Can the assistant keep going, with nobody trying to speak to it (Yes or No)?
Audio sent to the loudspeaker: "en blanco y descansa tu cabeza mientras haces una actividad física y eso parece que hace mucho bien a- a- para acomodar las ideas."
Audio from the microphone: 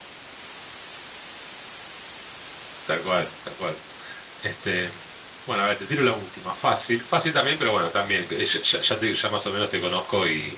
No